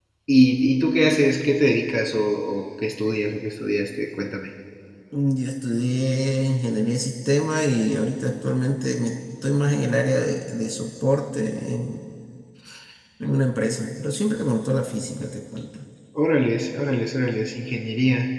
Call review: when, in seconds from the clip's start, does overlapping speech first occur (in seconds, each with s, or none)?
none